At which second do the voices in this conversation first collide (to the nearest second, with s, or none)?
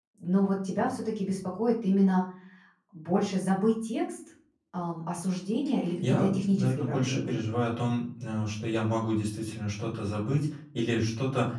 6 s